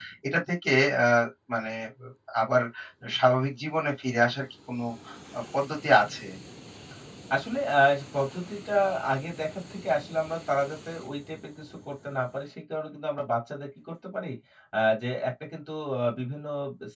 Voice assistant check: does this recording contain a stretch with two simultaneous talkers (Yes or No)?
No